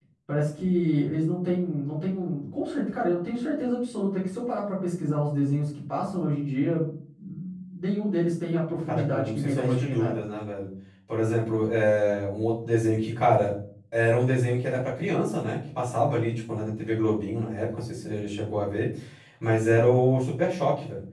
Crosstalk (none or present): present